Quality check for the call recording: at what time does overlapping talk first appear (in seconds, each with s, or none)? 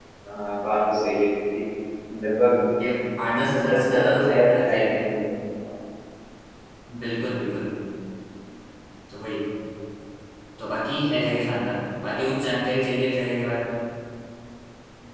3.6 s